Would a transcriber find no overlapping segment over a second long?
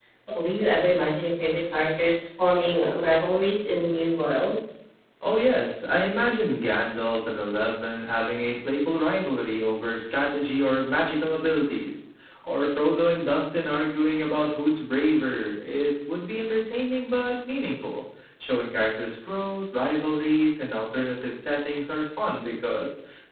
Yes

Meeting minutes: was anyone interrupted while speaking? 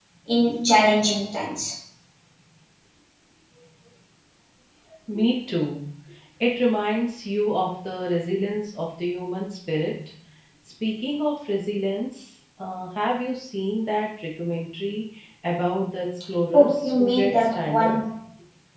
Yes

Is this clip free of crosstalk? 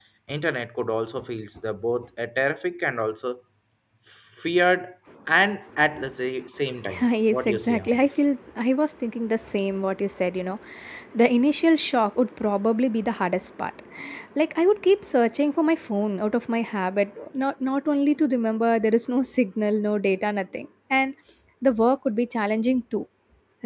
No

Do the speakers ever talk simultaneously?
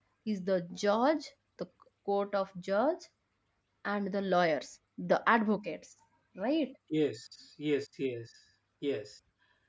No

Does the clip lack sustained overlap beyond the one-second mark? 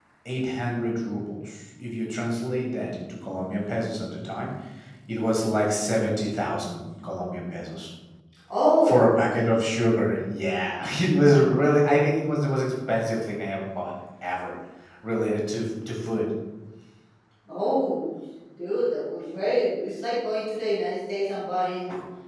Yes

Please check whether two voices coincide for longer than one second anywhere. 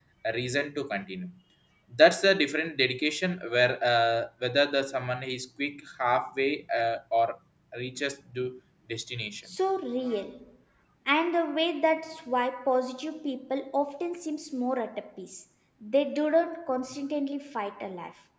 No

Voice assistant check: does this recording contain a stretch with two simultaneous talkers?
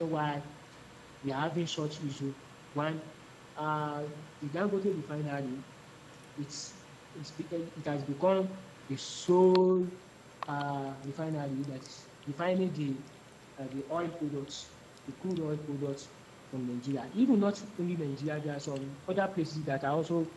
No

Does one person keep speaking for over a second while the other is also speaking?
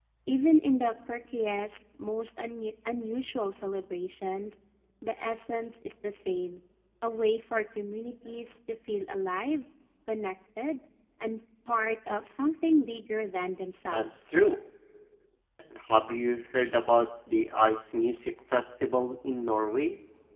No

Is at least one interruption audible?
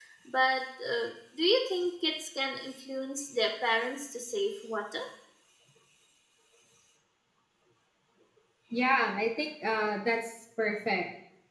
No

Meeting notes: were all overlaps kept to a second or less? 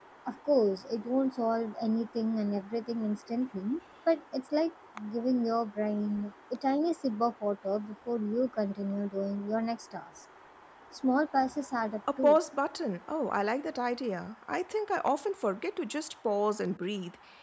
Yes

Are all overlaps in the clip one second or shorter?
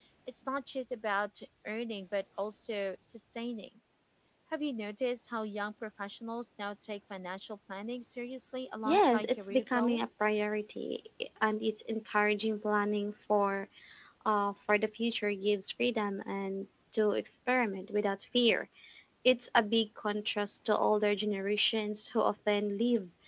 No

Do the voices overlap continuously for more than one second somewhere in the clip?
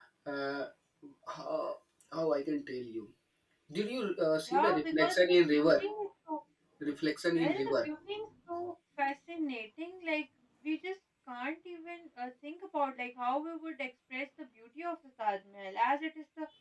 Yes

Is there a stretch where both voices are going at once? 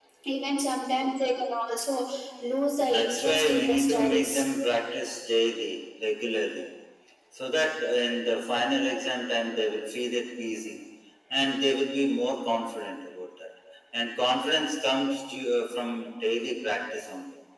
Yes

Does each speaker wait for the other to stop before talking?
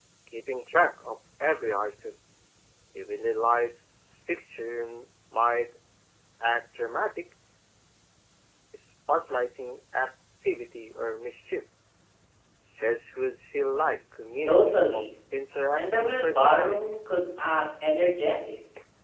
No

